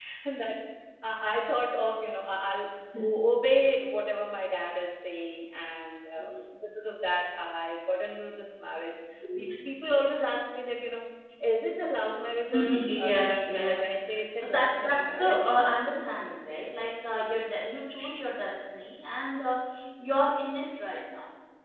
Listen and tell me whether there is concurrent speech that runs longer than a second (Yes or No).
Yes